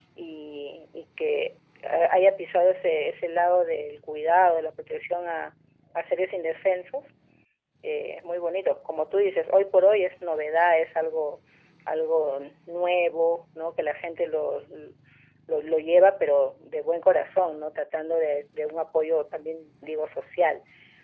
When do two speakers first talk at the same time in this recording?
none

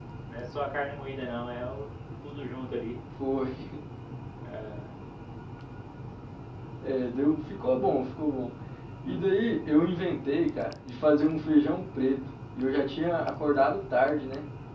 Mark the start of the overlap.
none

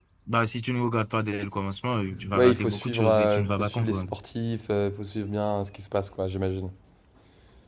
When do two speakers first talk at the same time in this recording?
2.3 s

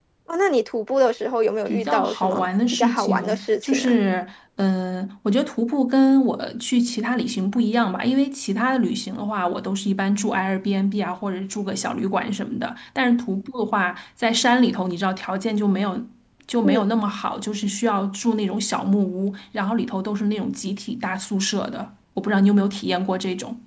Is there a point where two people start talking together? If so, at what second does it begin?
1.7 s

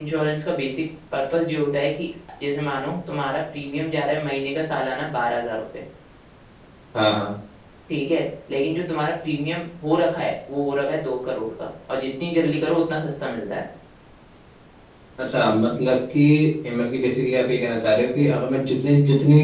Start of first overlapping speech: none

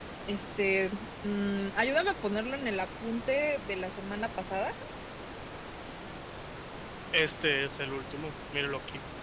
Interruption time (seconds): none

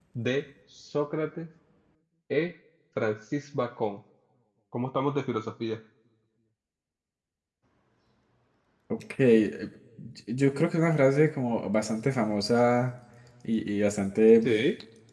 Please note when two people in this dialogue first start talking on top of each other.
none

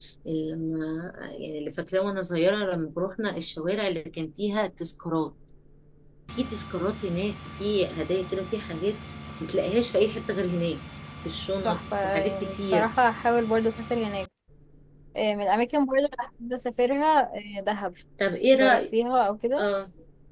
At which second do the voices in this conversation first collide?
11.6 s

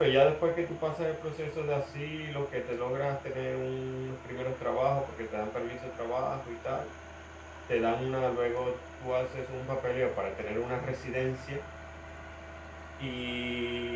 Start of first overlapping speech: none

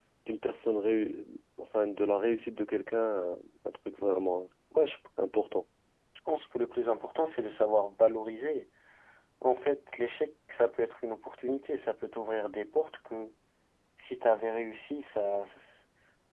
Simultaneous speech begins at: none

